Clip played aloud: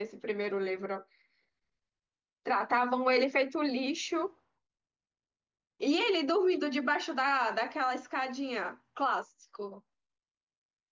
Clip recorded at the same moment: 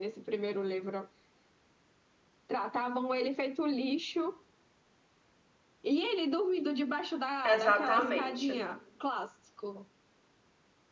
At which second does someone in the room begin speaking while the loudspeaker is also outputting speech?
7.4 s

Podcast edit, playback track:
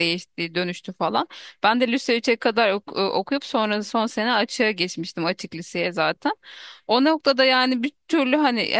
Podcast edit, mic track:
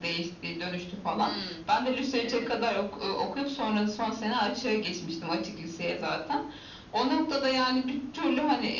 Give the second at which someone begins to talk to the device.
1.2 s

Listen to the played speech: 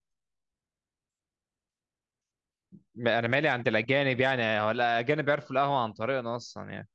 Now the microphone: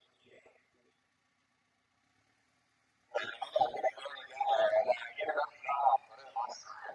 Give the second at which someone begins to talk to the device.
none

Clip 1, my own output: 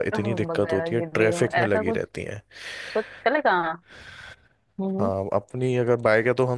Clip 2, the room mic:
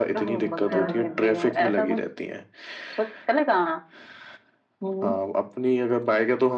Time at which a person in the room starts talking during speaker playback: 0.4 s

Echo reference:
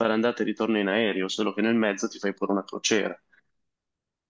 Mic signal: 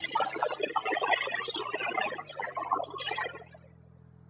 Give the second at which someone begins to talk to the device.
none

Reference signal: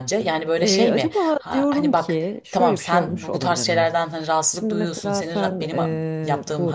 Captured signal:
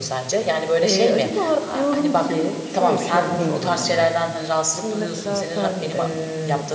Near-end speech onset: 3.4 s

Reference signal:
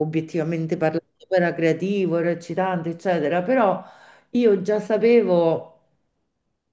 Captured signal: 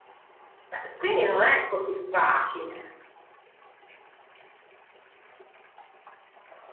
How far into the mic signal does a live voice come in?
0.6 s

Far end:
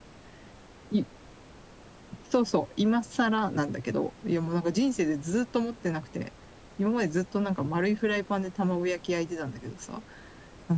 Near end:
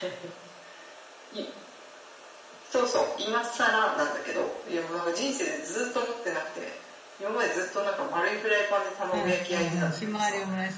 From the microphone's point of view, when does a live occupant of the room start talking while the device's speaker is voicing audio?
9.1 s

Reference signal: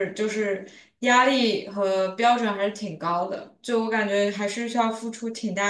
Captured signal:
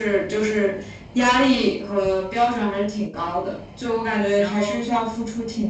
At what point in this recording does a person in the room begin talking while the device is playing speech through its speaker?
4.3 s

